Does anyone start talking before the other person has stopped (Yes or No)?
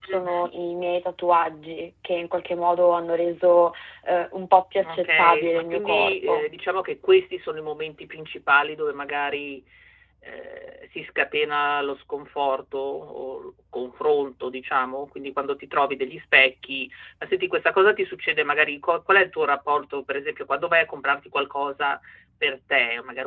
Yes